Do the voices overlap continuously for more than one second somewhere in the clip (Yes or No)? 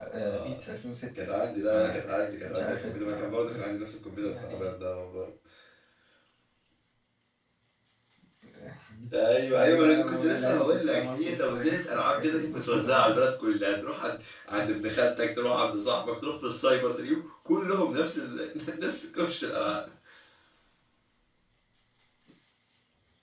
Yes